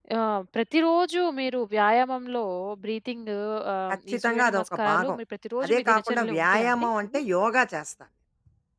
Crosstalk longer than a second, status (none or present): present